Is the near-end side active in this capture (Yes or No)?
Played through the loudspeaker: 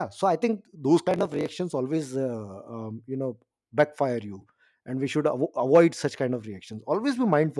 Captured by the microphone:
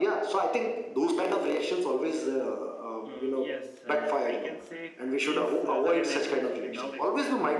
Yes